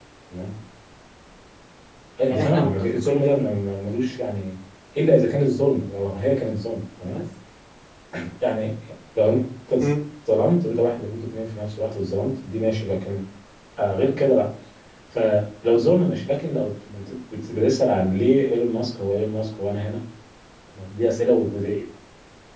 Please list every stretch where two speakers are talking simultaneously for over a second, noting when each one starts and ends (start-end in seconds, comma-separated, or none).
2.2-3.4